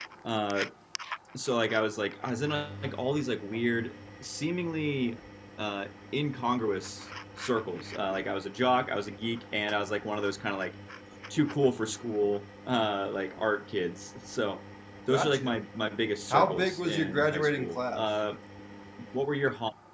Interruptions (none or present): present